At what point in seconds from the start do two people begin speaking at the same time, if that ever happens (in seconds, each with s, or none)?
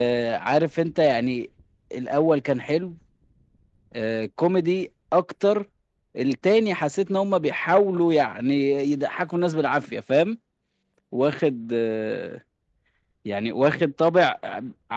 none